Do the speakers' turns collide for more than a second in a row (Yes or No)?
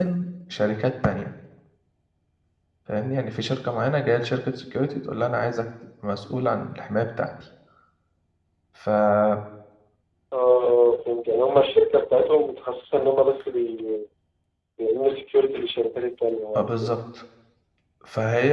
No